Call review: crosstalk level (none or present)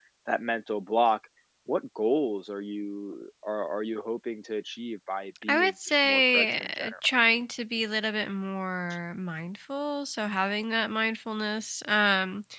present